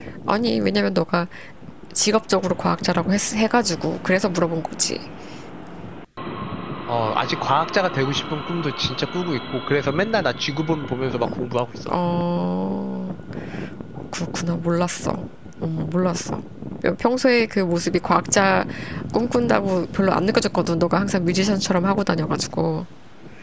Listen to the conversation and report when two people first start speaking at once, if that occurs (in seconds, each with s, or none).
none